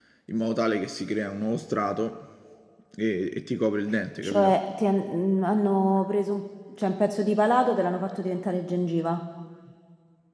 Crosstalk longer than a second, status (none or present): none